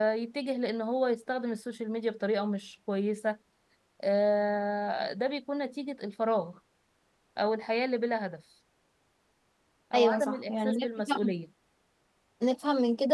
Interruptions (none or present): present